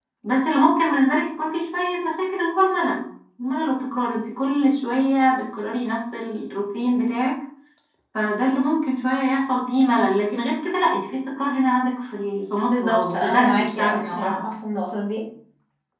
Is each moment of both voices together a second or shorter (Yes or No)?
No